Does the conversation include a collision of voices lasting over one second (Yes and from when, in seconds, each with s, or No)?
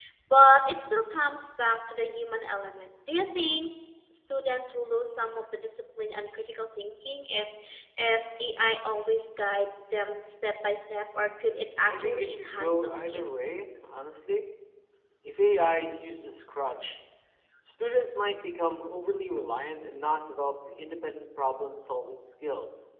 Yes, from 11.9 s